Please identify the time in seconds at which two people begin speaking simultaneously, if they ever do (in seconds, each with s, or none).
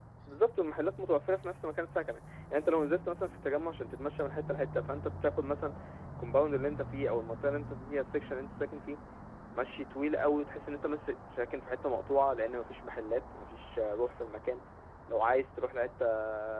none